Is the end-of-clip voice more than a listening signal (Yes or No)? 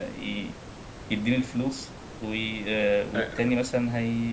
No